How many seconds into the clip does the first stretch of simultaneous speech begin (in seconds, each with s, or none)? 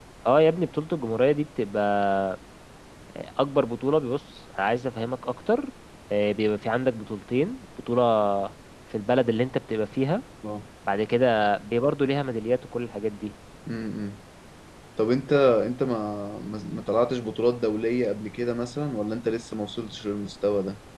none